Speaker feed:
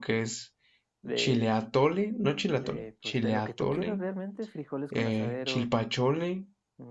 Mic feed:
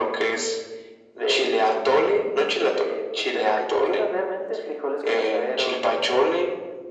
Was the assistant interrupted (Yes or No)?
No